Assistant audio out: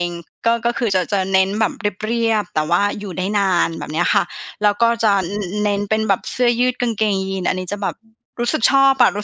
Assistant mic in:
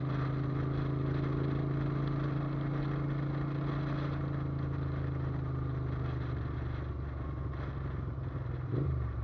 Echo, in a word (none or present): none